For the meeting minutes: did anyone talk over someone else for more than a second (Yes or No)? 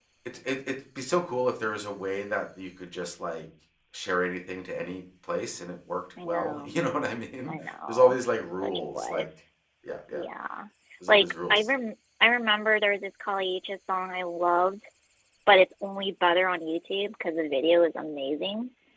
Yes